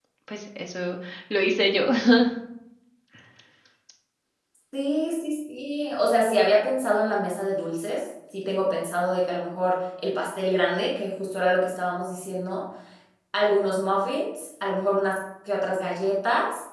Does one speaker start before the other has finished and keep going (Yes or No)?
No